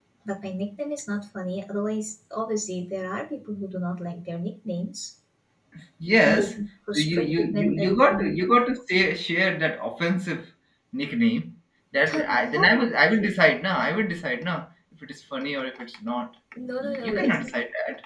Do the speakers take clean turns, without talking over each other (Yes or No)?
No